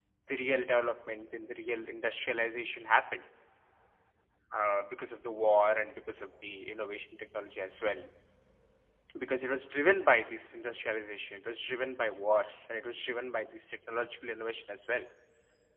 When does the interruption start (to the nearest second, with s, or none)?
none